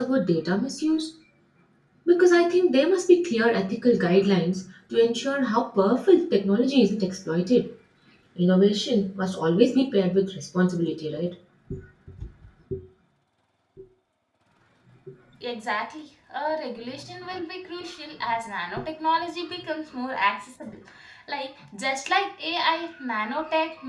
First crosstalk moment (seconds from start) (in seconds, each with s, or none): none